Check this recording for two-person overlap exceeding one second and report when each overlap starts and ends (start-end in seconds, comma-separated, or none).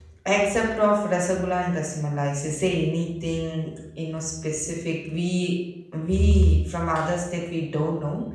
none